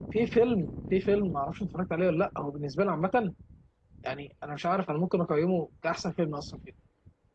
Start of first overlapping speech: none

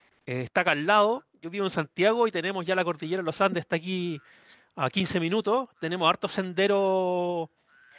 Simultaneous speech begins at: none

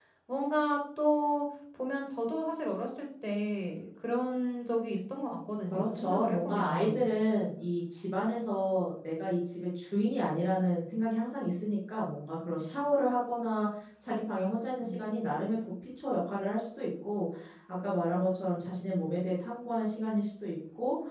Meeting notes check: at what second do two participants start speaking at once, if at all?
5.7 s

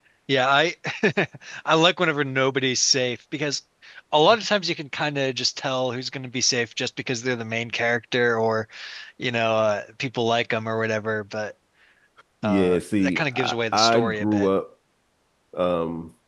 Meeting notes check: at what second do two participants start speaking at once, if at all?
12.4 s

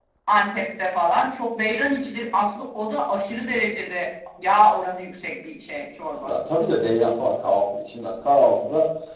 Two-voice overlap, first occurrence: none

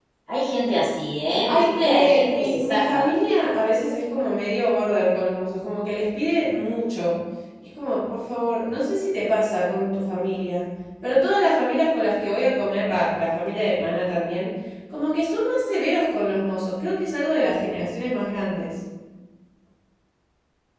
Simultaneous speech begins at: 1.4 s

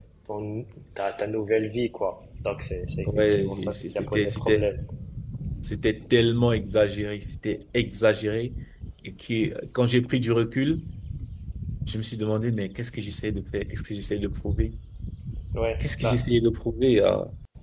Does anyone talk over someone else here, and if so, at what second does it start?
3.0 s

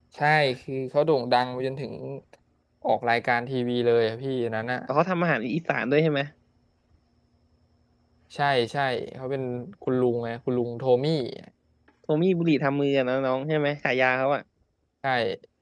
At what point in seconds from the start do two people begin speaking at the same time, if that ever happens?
none

